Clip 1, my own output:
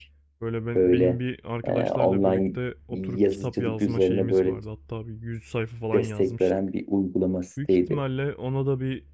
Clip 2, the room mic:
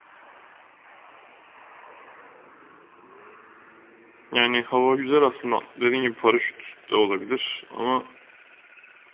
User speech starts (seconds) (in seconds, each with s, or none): 4.3 s